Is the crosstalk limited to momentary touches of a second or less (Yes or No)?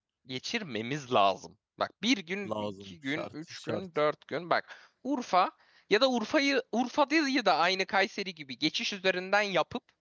No